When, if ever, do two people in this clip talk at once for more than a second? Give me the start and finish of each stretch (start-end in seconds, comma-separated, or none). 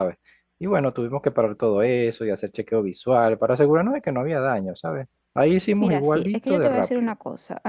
5.8-7.1